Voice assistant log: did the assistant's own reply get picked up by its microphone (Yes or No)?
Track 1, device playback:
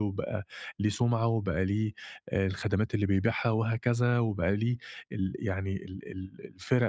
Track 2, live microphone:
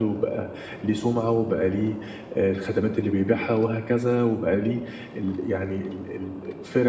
Yes